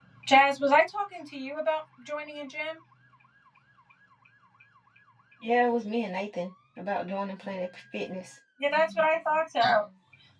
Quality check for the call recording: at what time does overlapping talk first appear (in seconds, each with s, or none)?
none